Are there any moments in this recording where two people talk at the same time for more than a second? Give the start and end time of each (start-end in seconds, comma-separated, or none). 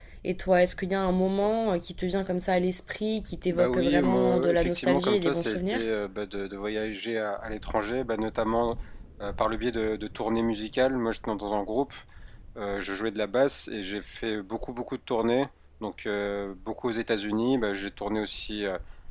3.5-5.9